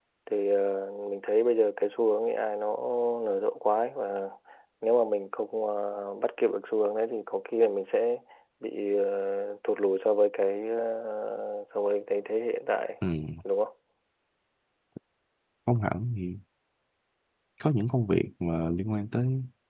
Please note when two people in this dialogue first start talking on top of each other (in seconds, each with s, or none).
none